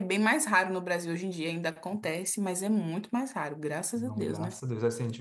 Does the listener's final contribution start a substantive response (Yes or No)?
Yes